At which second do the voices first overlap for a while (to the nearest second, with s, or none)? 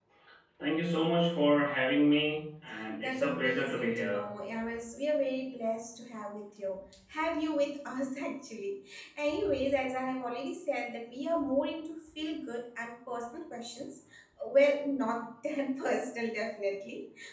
3 s